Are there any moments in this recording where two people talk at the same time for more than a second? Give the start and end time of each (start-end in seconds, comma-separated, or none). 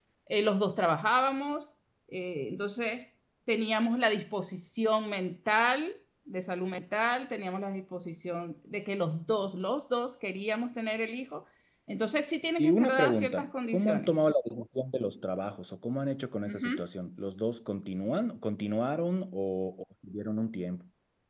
12.6-14.1